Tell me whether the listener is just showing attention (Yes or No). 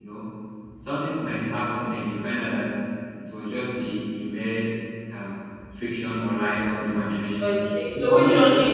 No